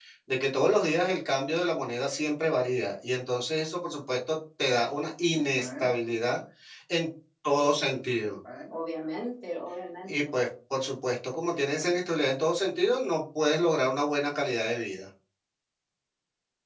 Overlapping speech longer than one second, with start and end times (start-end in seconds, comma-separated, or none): none